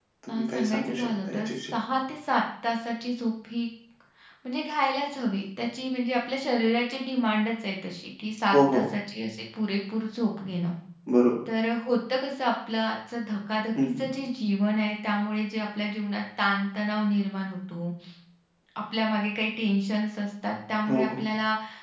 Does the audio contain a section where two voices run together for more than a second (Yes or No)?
Yes